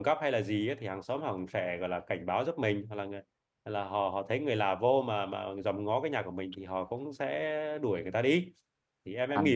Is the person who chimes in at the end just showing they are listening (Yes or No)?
No